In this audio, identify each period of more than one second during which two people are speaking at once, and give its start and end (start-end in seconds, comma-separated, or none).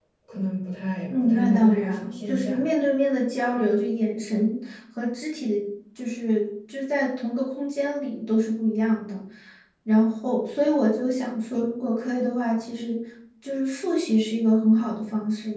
1.1-2.6